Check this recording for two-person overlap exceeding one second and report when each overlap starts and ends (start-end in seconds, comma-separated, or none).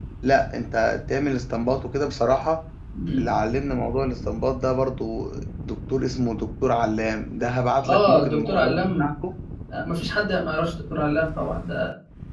7.8-9.1